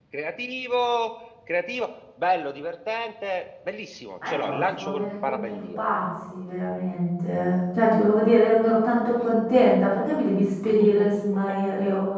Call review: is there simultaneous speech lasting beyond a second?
Yes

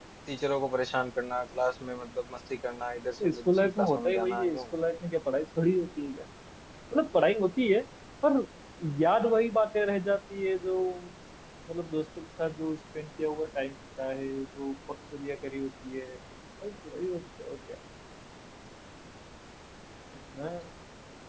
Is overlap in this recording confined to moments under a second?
No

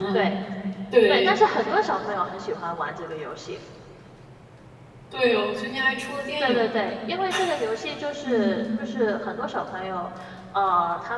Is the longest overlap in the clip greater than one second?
No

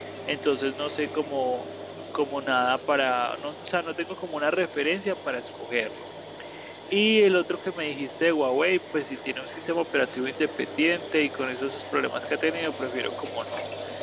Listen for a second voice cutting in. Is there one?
No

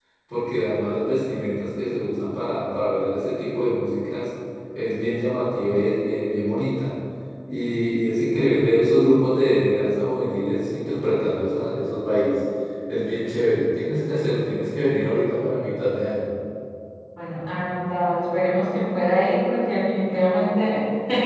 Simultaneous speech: No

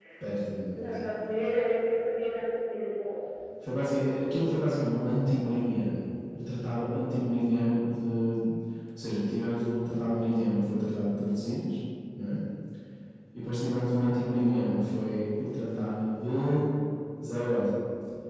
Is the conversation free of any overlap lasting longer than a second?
Yes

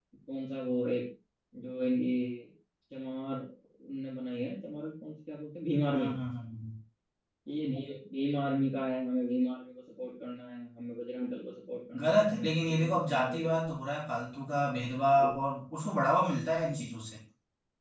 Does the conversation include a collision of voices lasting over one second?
Yes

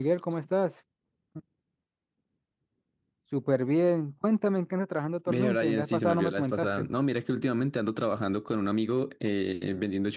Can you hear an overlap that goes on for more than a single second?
Yes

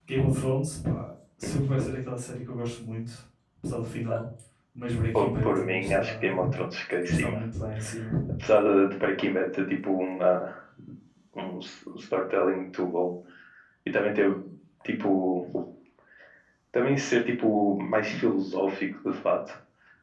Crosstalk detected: Yes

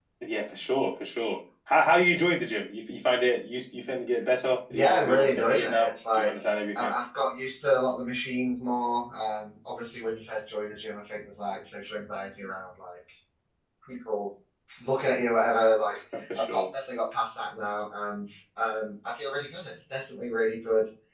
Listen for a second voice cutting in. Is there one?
Yes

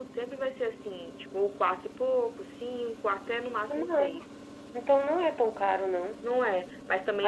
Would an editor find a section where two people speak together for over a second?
No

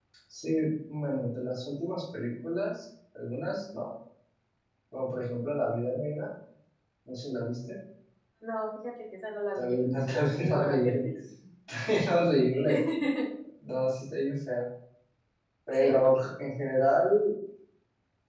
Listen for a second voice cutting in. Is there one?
Yes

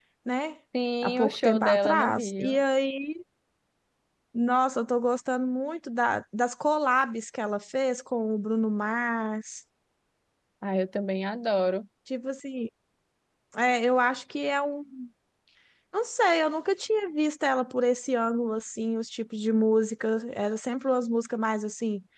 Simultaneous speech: Yes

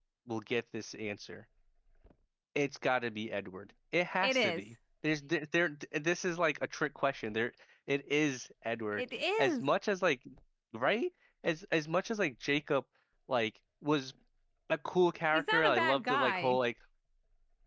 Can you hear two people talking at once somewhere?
Yes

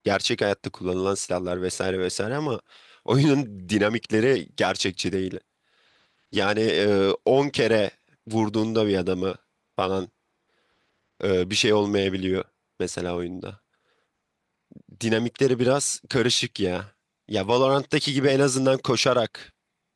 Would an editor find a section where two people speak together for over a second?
No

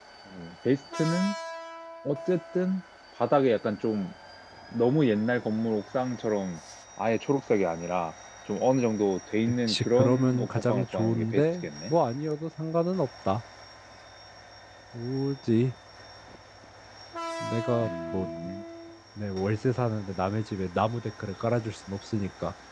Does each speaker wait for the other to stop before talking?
No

